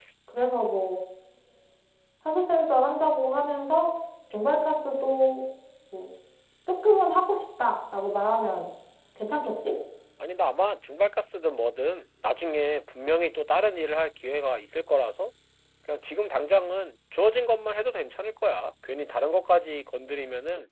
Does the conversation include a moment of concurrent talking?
No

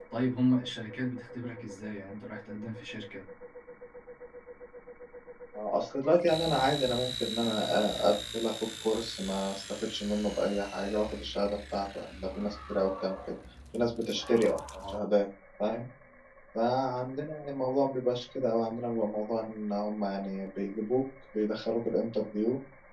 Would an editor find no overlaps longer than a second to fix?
Yes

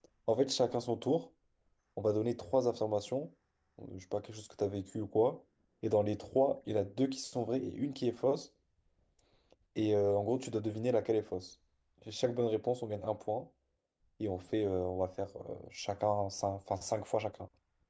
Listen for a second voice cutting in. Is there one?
No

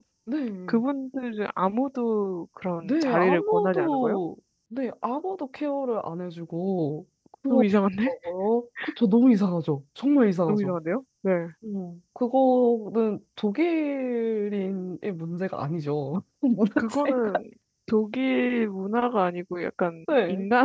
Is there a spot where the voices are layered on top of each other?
Yes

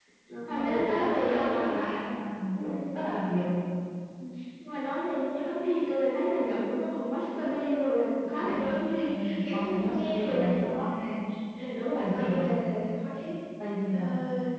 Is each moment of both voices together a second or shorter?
No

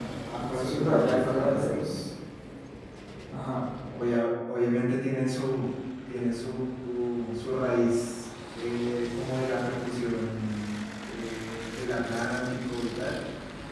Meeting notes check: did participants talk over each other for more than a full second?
Yes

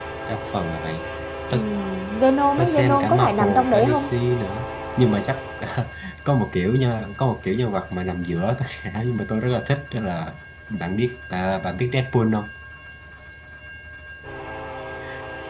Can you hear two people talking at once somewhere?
Yes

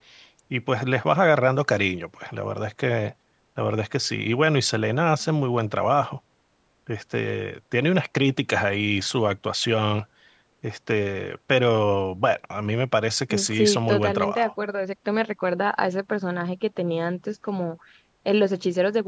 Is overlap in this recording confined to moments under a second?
No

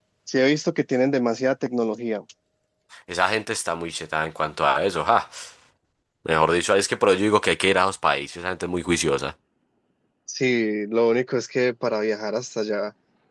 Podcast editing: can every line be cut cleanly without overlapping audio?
Yes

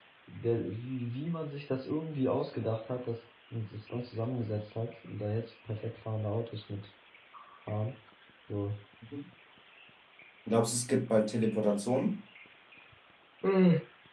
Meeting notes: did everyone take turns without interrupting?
Yes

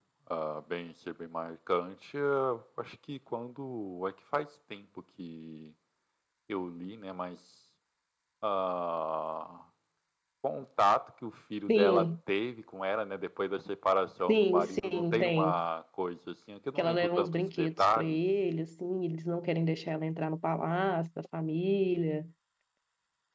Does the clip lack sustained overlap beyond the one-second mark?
No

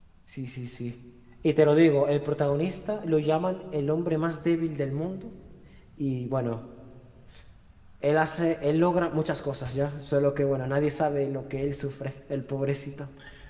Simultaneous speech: No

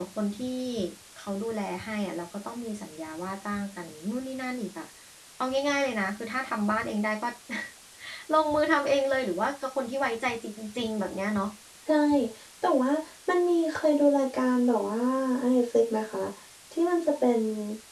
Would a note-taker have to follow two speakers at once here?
No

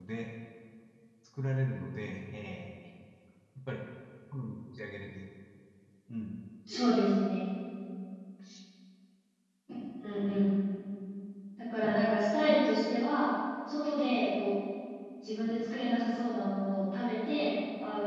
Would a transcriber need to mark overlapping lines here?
No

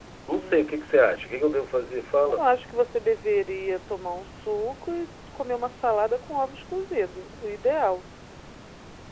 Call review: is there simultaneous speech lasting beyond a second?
No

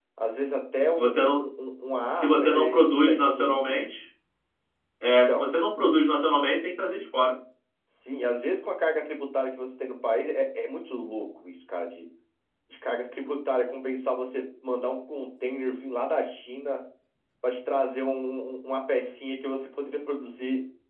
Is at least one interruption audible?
Yes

